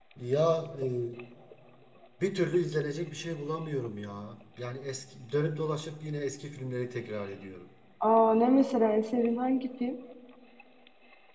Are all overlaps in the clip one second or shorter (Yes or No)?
Yes